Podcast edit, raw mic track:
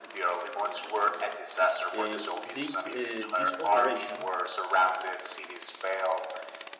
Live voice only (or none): uh, they, uh, this operation,